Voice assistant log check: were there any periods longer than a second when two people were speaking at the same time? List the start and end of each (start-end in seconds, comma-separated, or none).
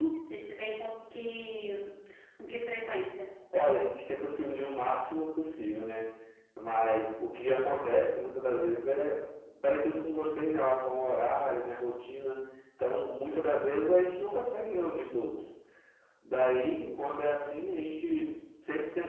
none